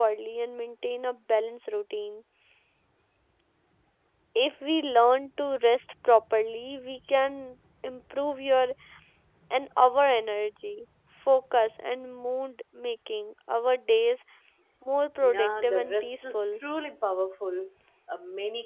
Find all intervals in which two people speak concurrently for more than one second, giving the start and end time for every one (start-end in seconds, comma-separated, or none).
15.2-16.4